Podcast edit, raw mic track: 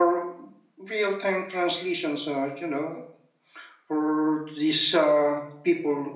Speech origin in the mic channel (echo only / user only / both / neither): echo only